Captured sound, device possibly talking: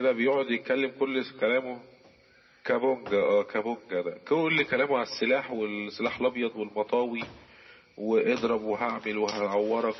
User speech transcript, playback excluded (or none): none